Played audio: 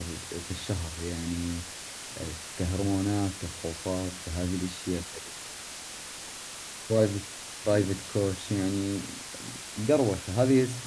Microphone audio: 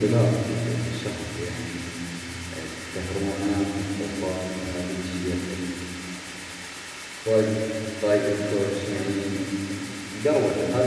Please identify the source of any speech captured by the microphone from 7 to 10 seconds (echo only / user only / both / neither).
echo only